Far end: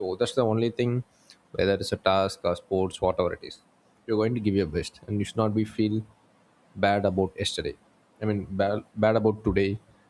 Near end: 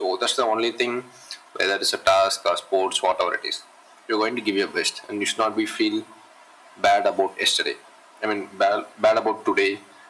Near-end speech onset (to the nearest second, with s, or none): none